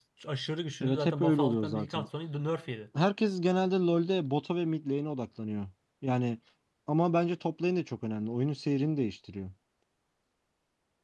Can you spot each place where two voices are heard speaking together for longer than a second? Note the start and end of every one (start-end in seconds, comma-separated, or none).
0.8-2.1